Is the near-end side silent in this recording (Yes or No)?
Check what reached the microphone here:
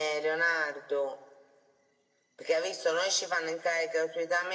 Yes